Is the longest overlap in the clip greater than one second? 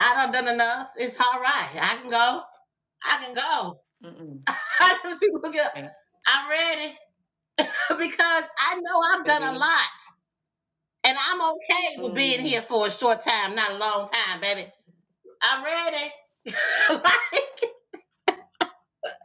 No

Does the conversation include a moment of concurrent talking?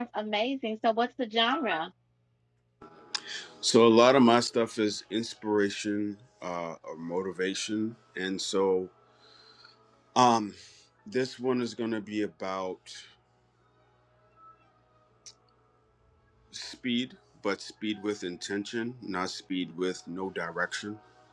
No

